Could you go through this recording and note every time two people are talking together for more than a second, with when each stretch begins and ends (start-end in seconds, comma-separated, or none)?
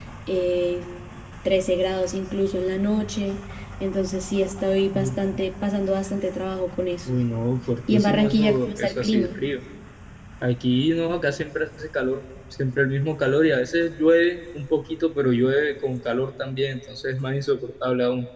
7.9-9.4